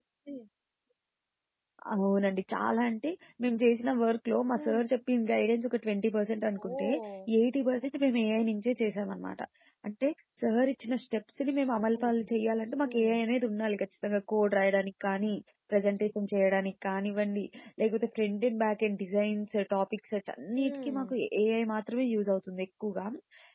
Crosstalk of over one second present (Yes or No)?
No